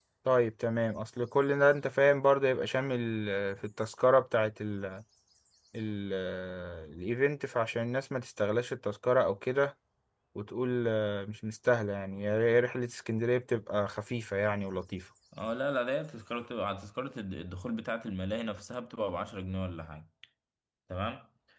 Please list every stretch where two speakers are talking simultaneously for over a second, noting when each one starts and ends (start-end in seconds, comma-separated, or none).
none